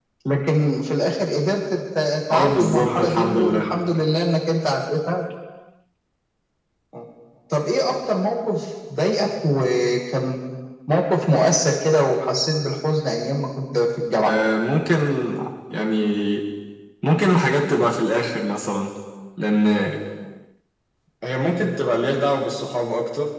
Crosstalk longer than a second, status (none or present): present